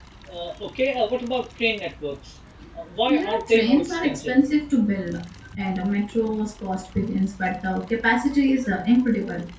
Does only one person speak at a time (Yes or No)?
No